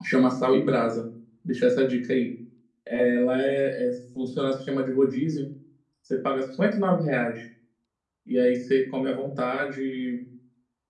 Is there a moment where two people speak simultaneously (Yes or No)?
No